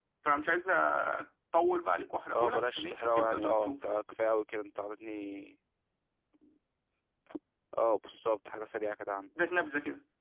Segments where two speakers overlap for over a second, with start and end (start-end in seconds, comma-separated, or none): 2.3-3.8